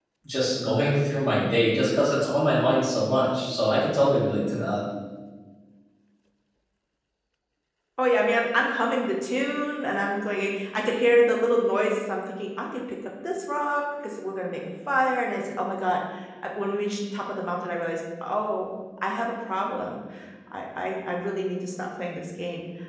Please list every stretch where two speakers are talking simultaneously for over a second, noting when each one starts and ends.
none

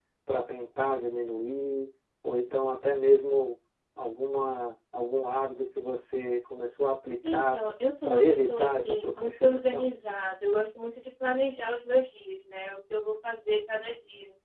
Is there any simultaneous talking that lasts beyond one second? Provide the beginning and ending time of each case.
8.0-9.9

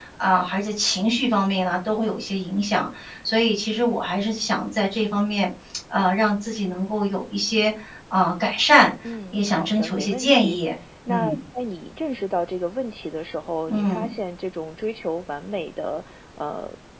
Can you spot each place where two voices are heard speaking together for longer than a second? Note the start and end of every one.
9.3-10.6

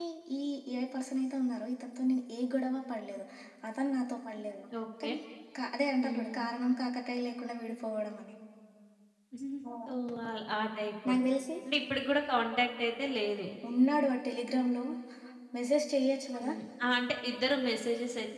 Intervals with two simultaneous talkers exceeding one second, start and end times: none

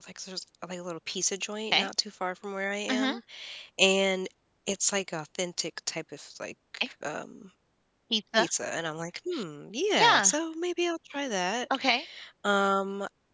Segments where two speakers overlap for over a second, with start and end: none

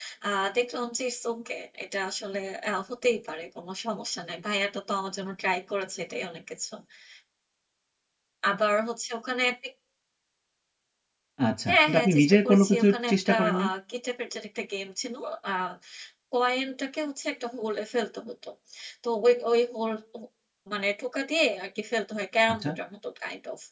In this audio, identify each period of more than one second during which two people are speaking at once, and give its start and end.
11.7-13.7

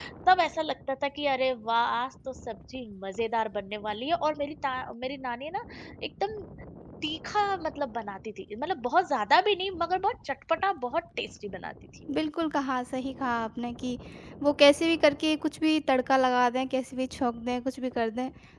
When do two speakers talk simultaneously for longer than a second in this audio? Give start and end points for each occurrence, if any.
none

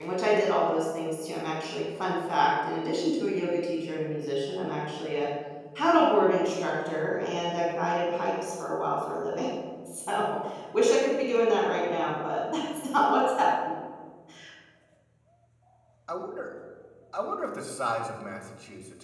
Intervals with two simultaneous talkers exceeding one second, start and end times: none

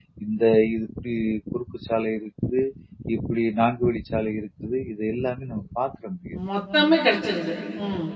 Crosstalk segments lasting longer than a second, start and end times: none

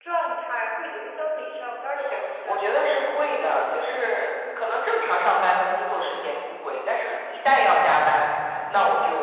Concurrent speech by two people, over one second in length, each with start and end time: 2.0-4.1

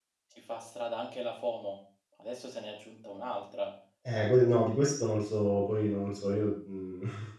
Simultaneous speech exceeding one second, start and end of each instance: none

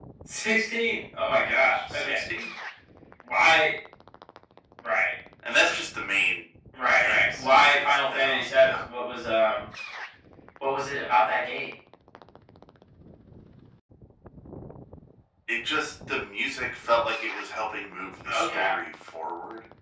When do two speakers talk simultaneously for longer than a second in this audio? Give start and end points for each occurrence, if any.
7.0-8.7

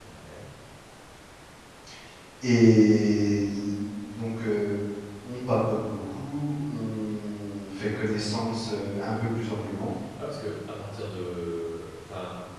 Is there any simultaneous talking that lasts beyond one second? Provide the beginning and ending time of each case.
none

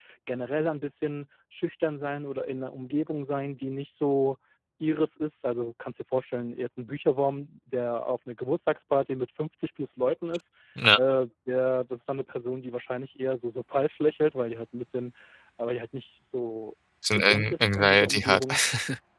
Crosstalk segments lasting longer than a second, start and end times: 17.1-18.4

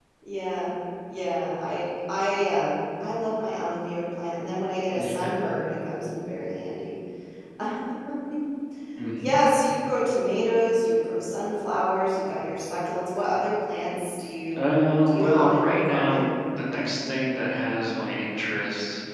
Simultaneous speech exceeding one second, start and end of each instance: 15.1-16.3

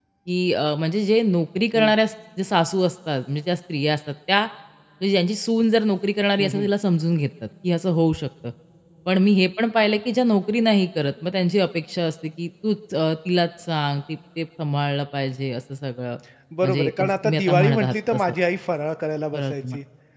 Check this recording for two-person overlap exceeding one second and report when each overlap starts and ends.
16.6-18.2

